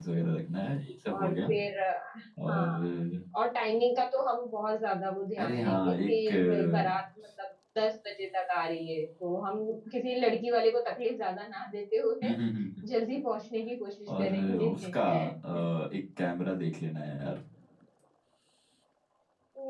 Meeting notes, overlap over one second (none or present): present